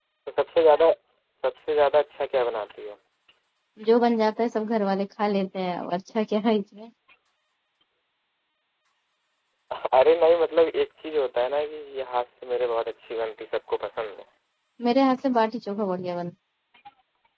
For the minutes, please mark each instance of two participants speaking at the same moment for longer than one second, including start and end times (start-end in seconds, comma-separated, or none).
none